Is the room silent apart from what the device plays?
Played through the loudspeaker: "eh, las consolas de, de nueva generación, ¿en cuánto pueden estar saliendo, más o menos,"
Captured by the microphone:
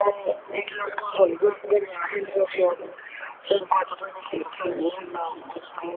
Yes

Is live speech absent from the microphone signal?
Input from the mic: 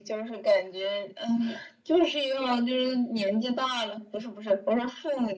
Yes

